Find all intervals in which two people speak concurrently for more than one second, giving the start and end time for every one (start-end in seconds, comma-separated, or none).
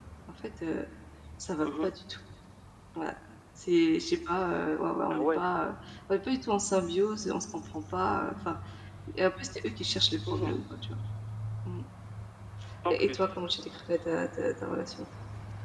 none